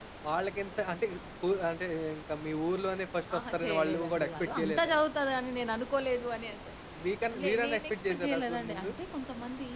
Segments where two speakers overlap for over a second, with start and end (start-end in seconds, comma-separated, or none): 3.4-4.9, 7.4-8.9